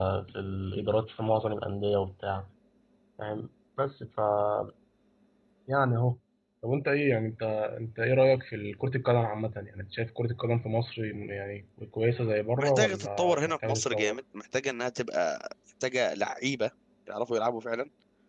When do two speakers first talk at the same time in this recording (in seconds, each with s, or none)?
12.6 s